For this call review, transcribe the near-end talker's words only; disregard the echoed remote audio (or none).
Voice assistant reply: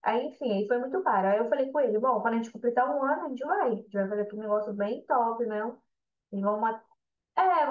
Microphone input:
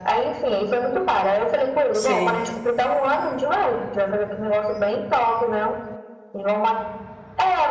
Sei.